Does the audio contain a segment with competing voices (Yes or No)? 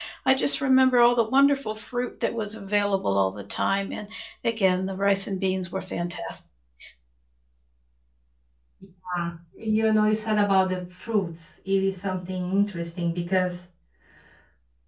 No